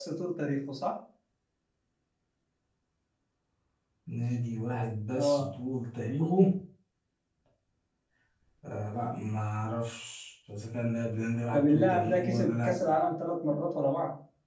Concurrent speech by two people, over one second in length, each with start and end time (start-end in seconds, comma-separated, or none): 11.5-12.7